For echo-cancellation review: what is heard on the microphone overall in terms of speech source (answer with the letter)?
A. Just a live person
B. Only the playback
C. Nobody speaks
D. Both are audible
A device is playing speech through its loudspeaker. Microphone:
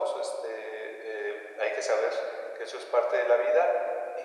B